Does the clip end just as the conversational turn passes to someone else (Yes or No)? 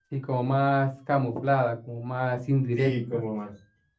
Yes